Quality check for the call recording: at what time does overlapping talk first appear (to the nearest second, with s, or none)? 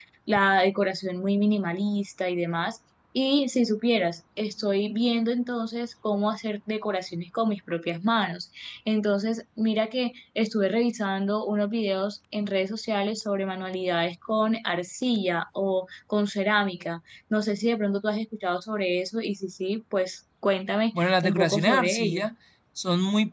21 s